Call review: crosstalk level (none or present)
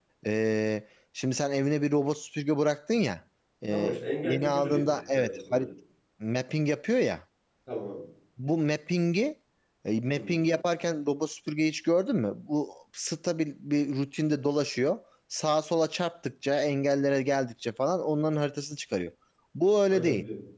present